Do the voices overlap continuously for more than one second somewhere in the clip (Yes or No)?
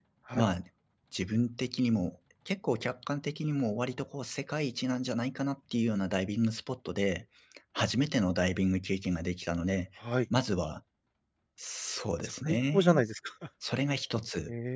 No